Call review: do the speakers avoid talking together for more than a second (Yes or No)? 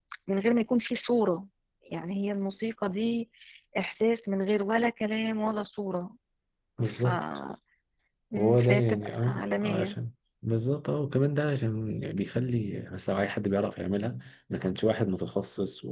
No